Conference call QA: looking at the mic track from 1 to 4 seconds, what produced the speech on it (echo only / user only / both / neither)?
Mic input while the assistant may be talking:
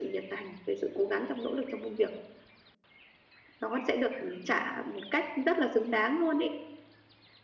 echo only